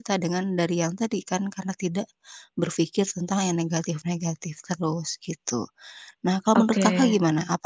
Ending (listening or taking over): listening